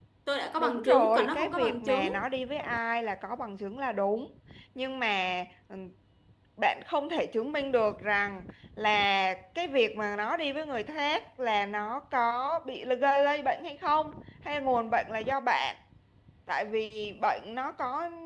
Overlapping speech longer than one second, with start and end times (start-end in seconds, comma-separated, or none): 0.6-2.1